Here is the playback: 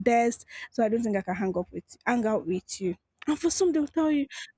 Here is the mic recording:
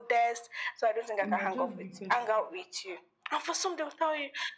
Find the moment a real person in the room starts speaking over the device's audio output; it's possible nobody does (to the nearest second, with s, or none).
1 s